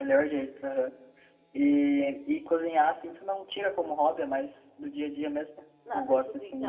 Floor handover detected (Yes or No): Yes